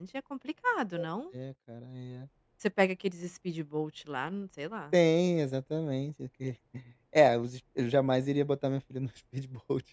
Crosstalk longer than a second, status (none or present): none